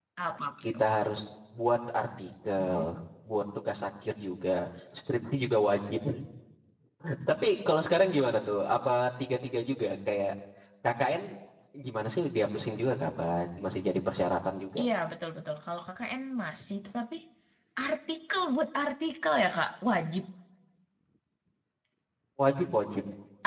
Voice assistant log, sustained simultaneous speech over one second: none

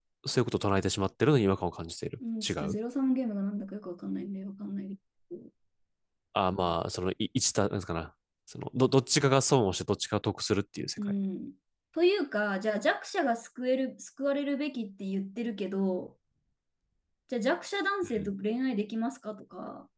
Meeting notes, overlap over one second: none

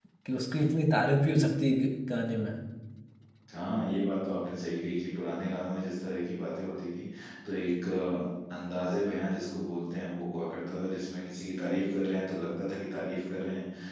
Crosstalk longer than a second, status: none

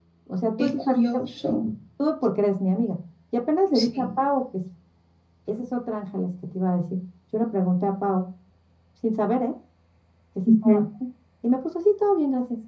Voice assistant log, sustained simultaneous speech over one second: none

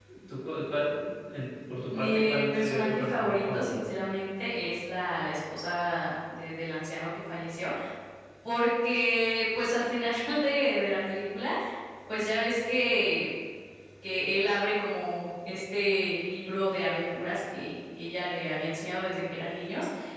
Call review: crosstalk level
present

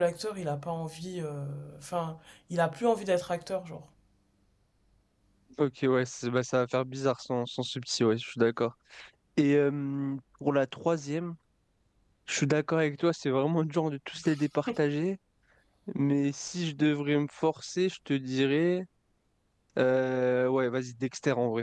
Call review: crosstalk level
none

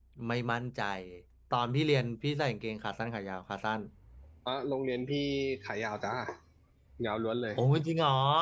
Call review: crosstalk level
none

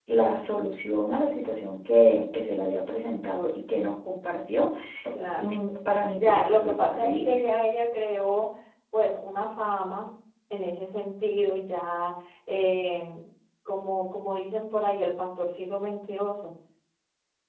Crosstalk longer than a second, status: present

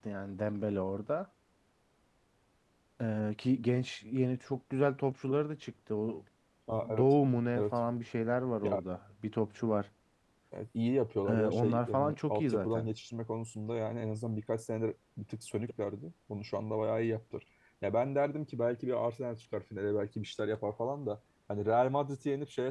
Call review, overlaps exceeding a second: present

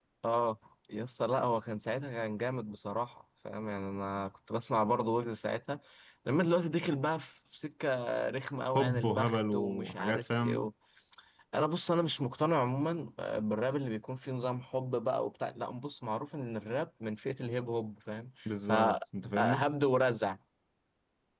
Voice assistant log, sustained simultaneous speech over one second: present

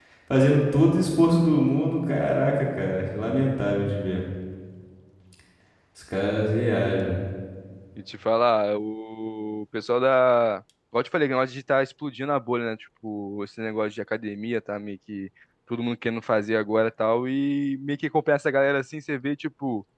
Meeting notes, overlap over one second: none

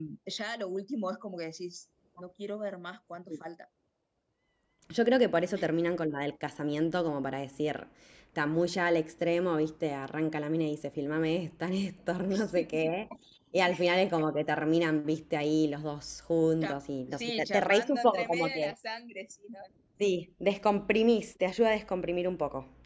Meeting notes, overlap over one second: present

